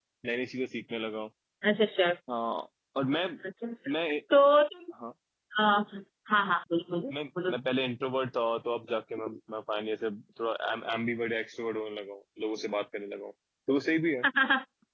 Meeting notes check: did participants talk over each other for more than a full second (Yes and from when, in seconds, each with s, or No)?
No